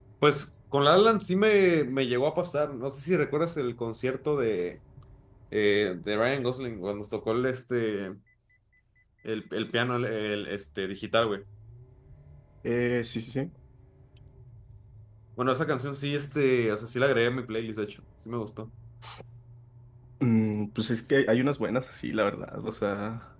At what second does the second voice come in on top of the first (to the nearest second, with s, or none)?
none